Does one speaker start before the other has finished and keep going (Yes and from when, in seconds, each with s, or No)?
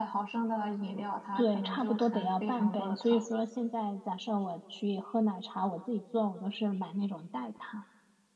Yes, from 1.4 s